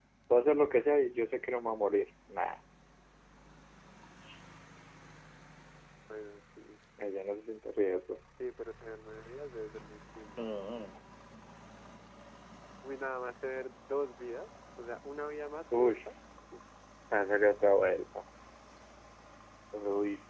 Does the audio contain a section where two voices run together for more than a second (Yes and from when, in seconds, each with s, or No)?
No